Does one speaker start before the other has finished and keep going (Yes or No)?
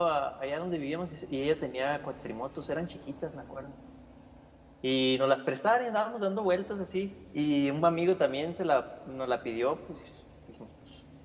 No